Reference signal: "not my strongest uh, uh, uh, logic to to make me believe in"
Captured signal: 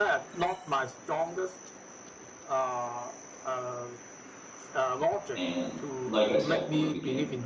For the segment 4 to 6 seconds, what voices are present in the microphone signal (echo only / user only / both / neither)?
both